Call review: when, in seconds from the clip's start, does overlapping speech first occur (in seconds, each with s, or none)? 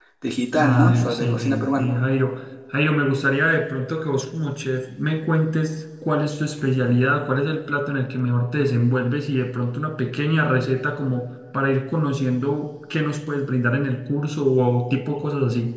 0.6 s